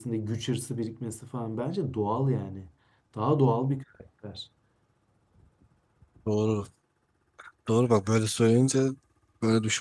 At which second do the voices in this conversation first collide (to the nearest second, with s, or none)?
none